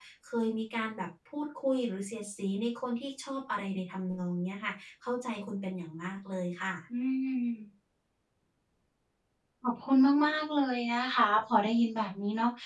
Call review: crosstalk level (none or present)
none